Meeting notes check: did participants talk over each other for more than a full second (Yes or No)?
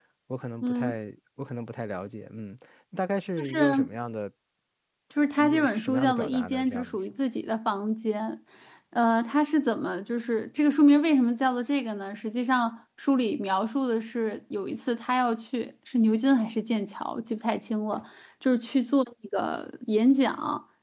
Yes